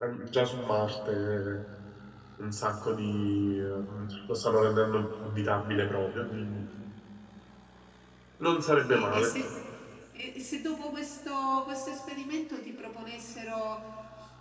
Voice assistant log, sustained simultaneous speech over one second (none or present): none